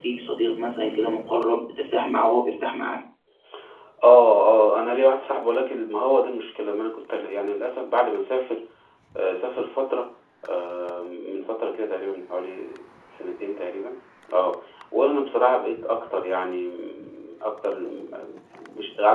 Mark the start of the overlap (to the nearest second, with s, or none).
none